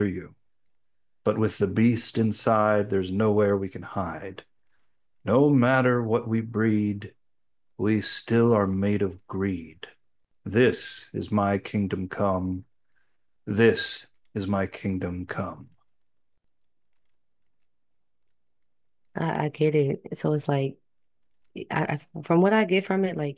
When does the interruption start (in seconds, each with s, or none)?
none